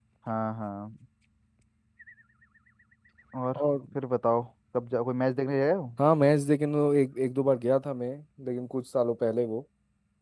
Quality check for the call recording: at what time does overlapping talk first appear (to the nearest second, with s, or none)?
none